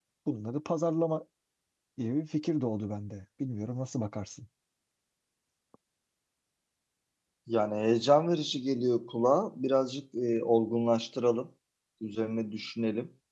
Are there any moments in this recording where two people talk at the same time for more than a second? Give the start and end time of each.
none

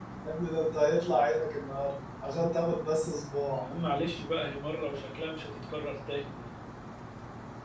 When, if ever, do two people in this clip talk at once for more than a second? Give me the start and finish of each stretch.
none

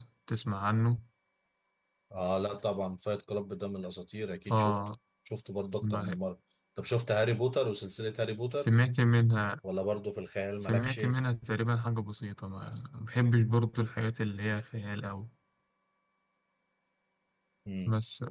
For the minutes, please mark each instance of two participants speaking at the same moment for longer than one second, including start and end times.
none

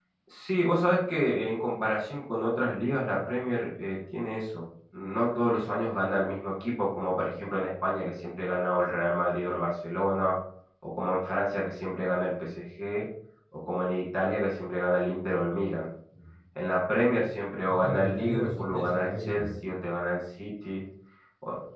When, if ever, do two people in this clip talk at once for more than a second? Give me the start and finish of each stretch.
17.7-19.5

